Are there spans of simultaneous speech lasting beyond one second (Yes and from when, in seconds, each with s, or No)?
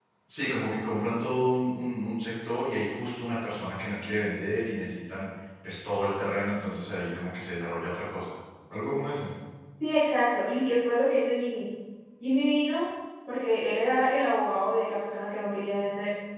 No